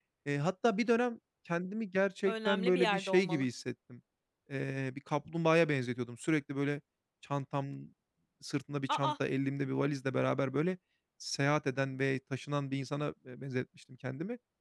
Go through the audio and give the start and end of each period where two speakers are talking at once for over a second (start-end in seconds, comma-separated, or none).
2.2-3.4